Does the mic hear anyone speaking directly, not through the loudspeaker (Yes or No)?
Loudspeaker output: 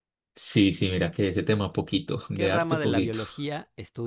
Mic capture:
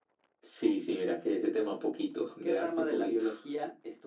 No